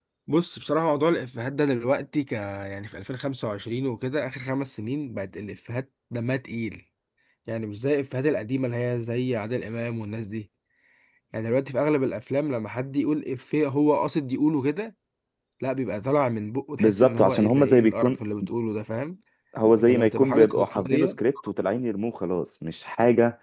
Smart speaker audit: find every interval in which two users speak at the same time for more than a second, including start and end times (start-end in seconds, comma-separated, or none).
16.8-18.2, 19.8-21.1